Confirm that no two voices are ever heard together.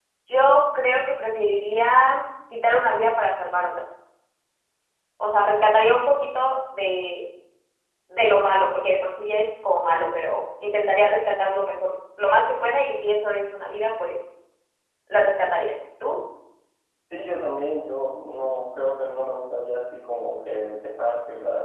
Yes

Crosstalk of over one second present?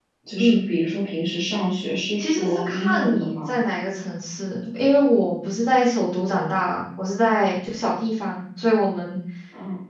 Yes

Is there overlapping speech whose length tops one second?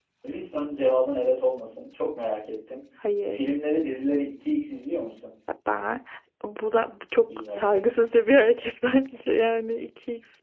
No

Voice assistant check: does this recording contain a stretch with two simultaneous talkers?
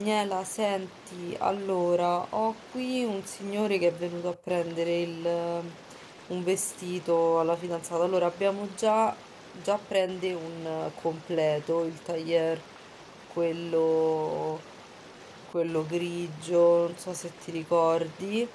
No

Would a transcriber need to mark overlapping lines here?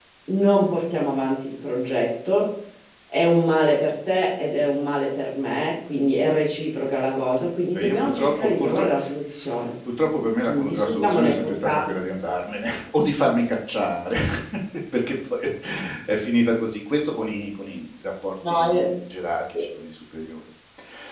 Yes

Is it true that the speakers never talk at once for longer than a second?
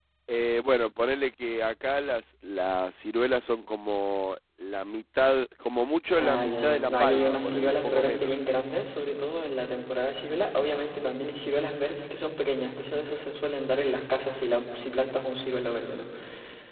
No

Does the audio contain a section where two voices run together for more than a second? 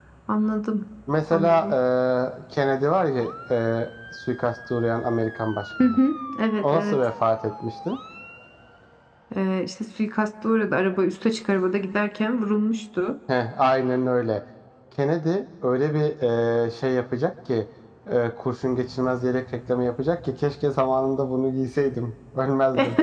No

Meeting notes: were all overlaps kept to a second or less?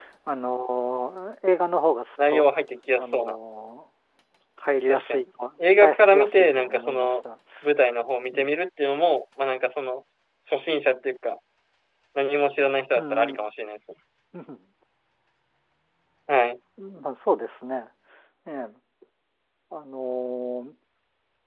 No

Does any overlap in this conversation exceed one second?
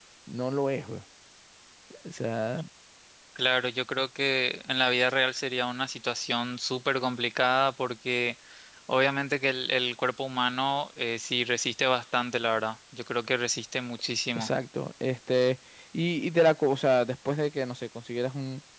No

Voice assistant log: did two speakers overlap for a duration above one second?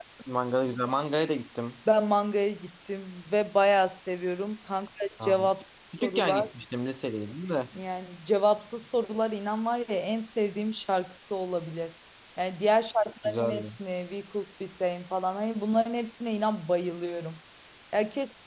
No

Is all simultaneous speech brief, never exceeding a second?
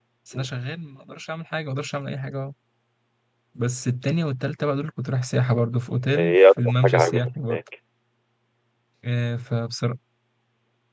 No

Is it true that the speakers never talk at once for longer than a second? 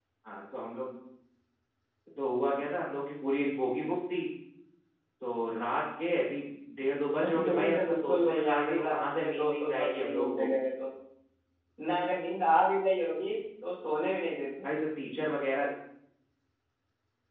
No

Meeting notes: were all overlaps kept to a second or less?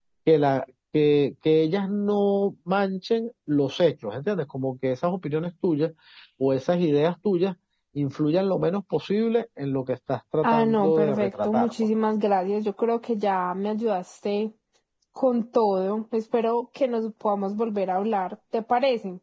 No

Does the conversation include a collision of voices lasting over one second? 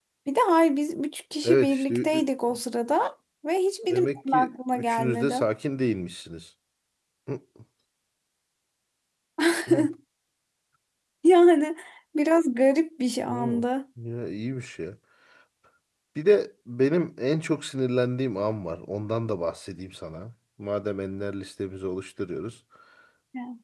Yes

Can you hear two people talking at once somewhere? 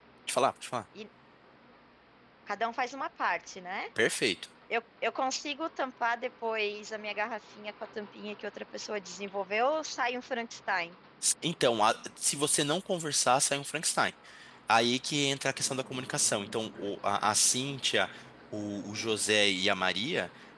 No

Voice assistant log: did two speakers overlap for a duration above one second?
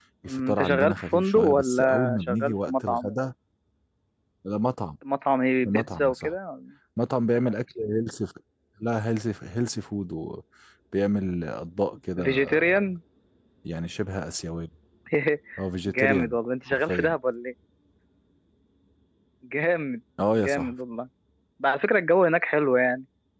Yes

